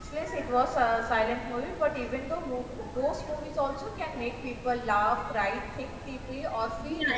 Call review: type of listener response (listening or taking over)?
taking over